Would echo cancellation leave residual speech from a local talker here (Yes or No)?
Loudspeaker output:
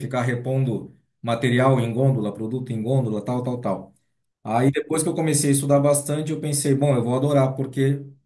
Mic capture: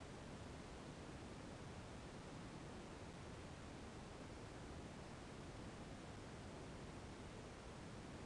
No